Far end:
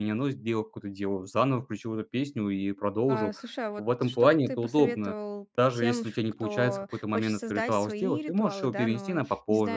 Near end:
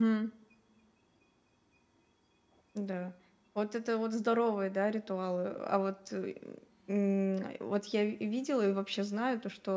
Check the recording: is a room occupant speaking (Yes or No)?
Yes